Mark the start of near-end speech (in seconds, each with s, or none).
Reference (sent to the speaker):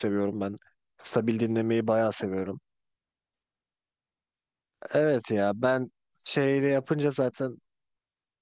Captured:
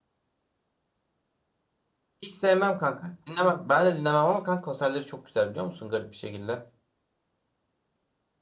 2.2 s